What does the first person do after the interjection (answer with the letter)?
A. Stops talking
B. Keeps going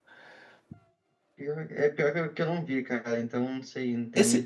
A